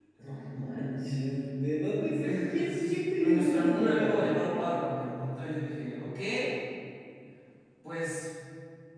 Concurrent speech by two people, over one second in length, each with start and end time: 2.2-4.7

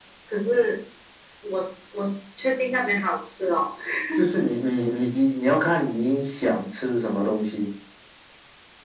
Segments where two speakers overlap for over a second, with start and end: none

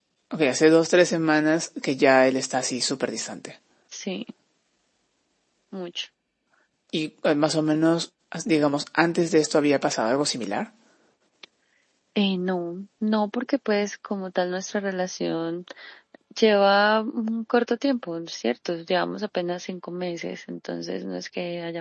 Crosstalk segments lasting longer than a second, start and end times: none

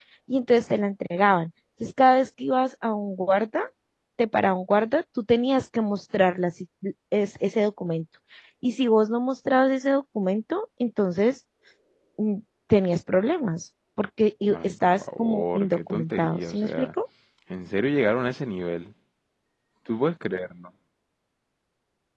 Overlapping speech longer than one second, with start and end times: 14.5-16.9

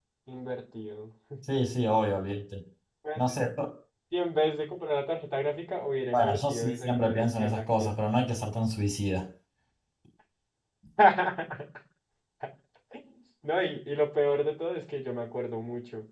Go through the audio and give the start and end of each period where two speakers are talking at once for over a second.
6.1-7.9

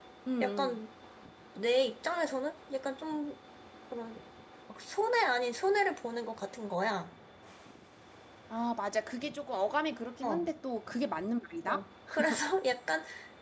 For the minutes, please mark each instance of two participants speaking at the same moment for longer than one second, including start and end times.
none

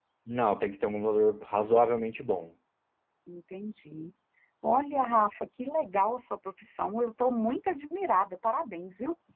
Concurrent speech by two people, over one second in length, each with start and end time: none

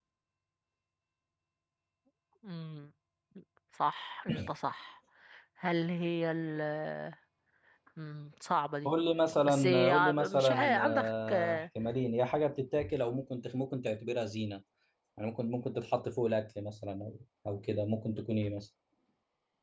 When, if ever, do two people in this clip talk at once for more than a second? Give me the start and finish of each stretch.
9.4-11.6

